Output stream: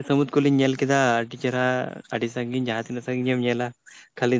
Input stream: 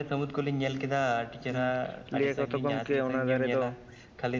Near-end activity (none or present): present